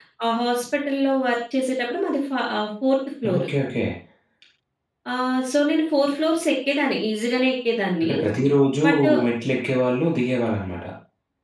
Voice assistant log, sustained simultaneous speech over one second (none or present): none